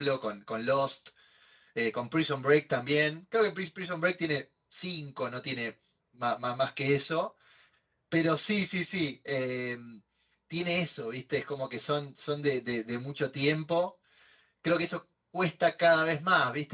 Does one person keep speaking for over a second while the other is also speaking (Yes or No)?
No